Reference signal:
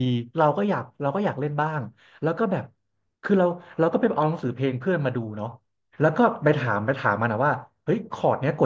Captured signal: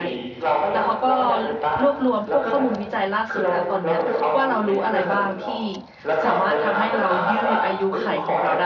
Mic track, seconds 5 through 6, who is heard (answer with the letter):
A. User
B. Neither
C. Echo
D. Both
D